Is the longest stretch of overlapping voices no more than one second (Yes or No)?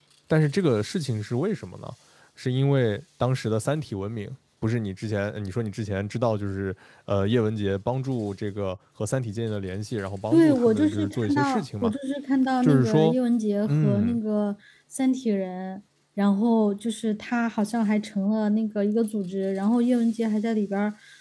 No